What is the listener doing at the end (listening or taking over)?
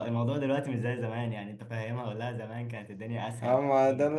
taking over